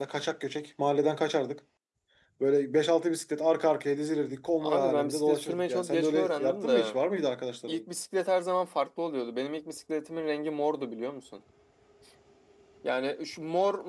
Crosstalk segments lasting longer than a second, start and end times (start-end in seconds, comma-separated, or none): 4.6-7.0